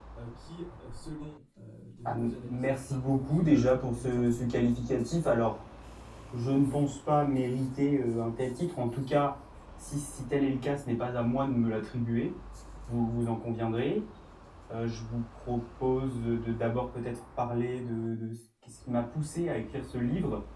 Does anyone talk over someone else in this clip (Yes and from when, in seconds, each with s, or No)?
Yes, from 2.0 s